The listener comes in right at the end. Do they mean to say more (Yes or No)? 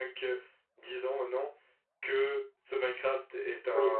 Yes